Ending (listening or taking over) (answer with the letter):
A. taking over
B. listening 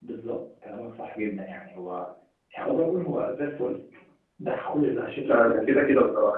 A